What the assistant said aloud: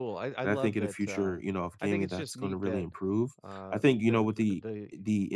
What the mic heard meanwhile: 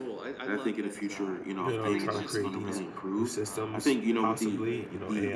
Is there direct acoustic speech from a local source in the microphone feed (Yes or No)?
Yes